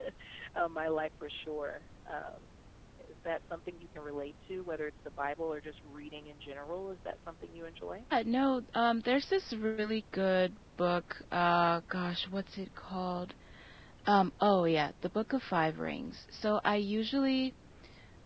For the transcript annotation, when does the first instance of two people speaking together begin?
none

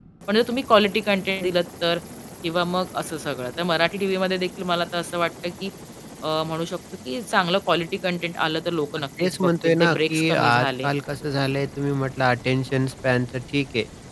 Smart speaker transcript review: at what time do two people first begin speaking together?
9 s

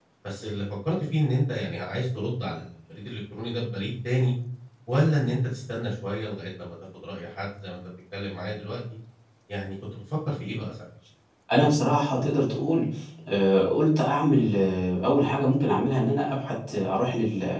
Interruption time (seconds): none

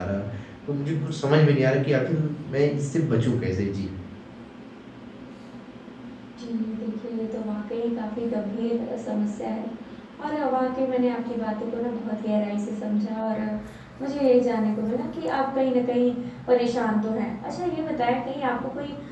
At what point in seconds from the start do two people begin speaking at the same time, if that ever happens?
none

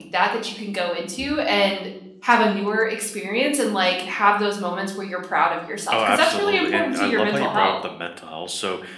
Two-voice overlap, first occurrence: 6 s

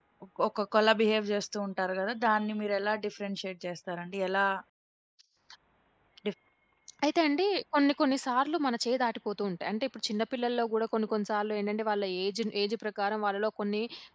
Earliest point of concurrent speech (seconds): none

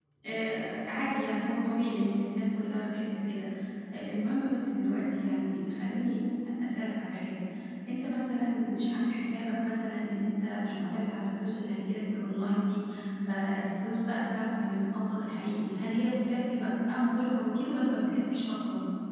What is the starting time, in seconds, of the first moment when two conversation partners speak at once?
none

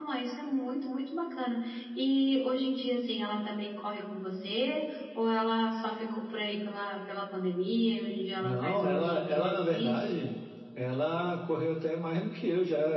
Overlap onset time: 8 s

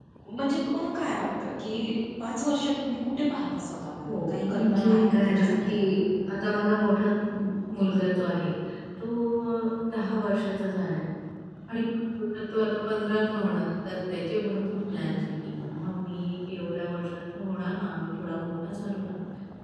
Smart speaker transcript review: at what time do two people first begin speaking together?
4 s

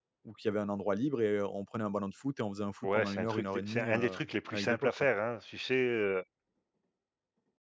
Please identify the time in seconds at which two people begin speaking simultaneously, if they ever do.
3 s

